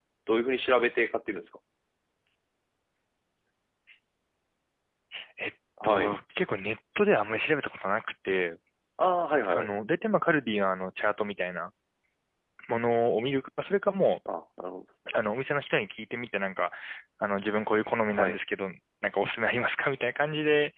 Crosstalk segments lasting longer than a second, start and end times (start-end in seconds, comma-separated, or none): none